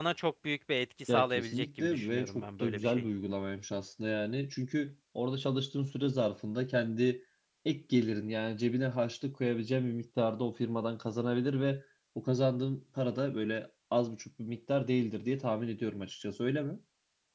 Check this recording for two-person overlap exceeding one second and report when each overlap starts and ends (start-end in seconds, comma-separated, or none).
1.1-3.1